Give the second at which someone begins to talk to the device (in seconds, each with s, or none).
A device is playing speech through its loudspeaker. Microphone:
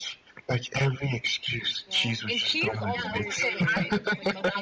1.9 s